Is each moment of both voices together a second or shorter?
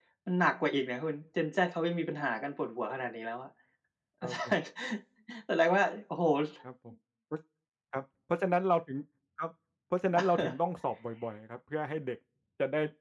Yes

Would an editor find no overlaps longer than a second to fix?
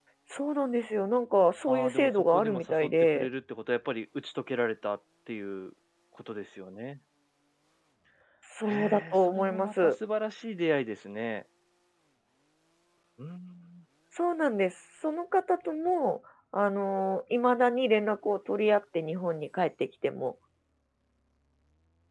No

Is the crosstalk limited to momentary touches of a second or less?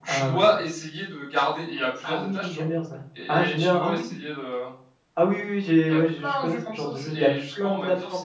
No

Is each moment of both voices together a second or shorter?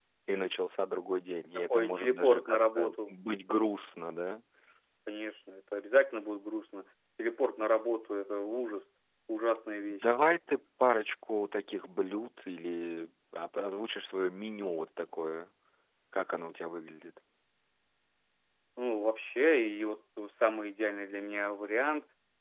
No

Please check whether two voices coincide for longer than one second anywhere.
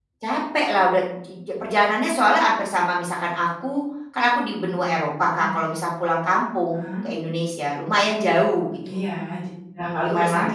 No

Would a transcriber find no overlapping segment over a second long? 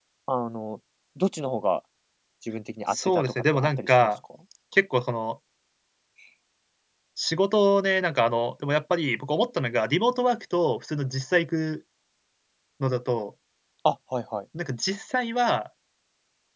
No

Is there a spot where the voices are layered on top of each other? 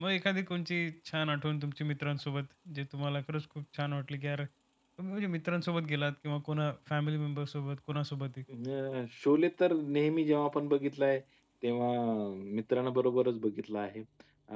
No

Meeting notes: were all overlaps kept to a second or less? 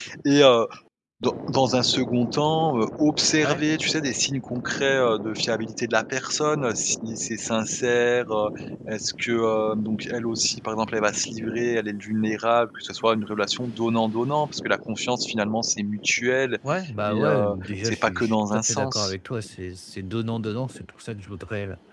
No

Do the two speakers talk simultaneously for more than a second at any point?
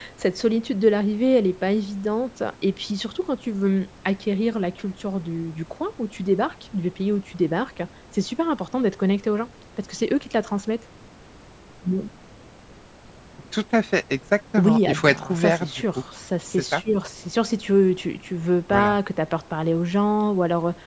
Yes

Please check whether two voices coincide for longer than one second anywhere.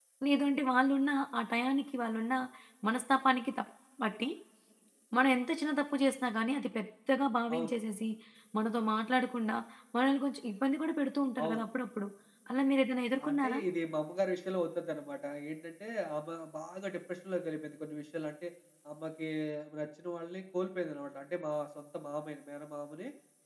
No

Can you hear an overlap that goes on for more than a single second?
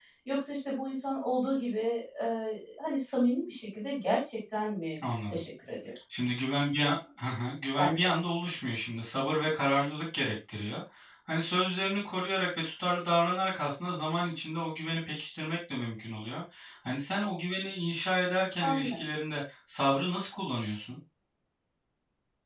No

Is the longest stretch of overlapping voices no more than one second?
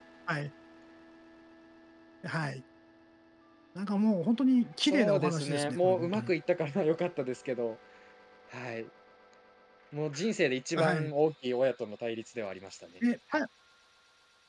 No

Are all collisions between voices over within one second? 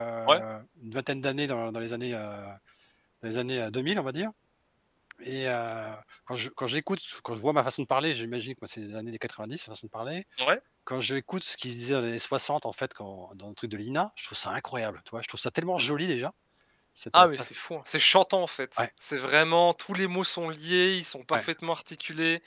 Yes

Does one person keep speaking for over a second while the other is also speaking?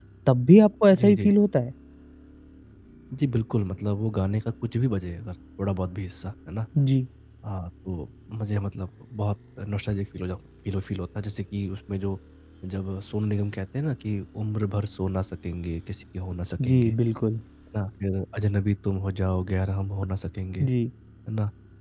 No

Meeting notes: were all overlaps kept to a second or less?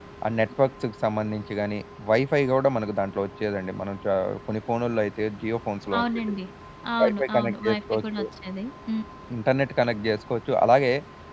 No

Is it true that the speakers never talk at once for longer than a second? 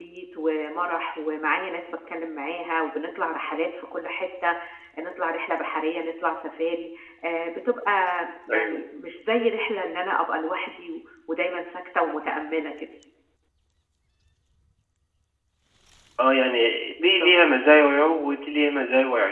Yes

